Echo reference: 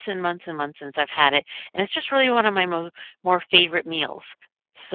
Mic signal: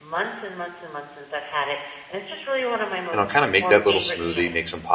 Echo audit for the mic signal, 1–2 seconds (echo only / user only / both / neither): echo only